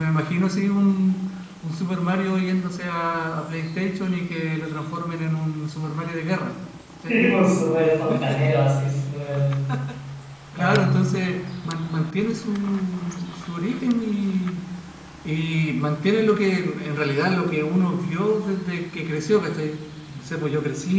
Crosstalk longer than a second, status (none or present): none